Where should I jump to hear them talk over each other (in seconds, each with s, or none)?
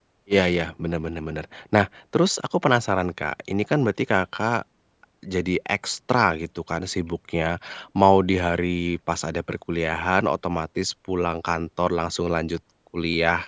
none